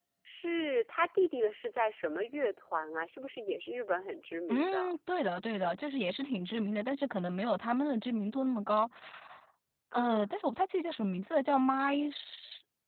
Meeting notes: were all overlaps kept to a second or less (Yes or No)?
Yes